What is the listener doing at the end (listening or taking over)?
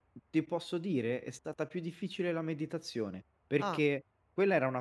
listening